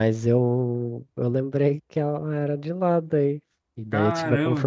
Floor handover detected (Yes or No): No